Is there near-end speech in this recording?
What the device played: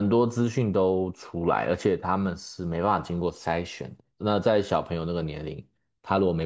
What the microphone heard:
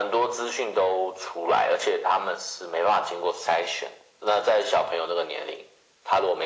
No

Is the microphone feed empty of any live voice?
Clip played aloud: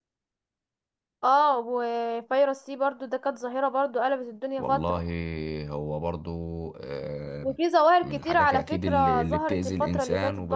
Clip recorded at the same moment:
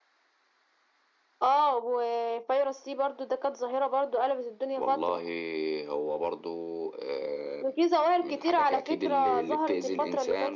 Yes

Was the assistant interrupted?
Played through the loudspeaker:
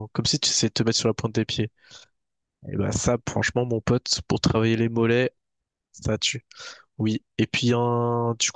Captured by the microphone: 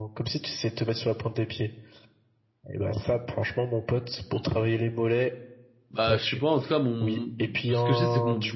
Yes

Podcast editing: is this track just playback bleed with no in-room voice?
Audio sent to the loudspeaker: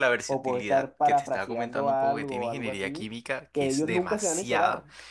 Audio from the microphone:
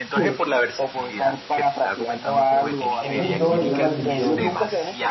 No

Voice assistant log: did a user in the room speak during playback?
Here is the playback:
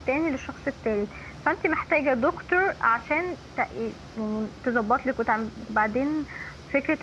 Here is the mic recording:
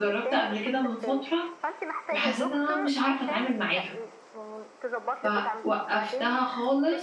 Yes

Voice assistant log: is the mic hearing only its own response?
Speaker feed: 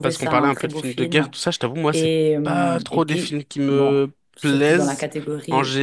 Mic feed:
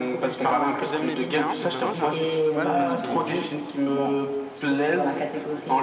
No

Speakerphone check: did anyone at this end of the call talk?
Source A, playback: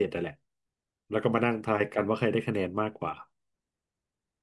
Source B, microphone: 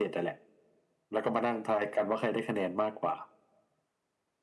No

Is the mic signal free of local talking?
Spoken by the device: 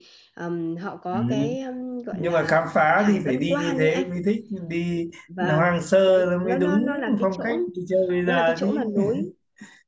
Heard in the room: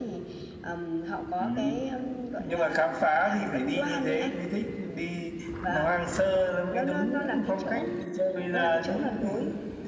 Yes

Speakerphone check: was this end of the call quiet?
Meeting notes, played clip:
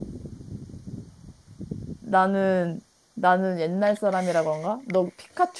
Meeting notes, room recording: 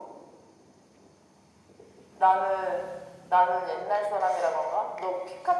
Yes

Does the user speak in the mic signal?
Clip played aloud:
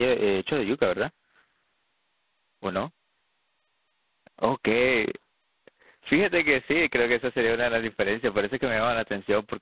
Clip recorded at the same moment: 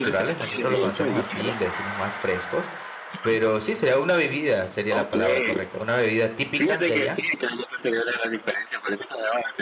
Yes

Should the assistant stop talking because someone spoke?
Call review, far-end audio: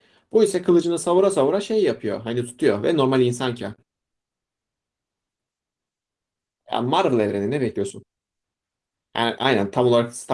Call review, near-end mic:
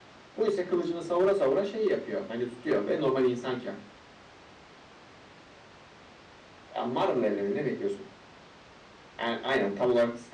No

